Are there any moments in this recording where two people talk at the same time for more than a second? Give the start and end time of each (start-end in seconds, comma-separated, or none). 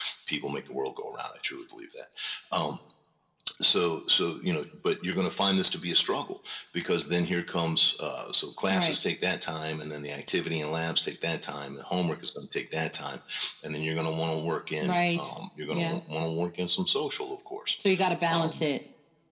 none